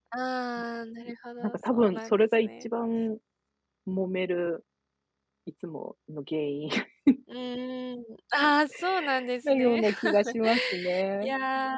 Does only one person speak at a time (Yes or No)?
No